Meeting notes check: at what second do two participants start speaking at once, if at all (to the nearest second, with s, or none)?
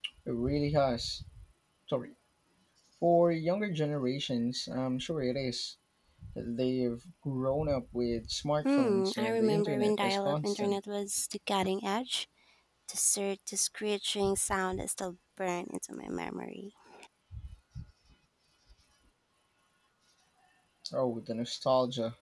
9 s